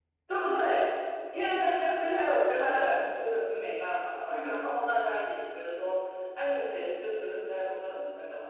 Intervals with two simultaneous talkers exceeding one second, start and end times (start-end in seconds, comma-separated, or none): none